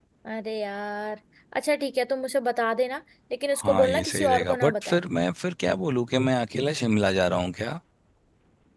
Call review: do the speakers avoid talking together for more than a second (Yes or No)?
No